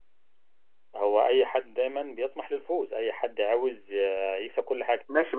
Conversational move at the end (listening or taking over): taking over